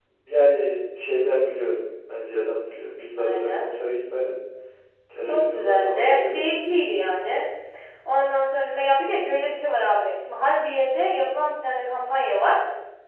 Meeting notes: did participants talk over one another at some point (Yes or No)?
Yes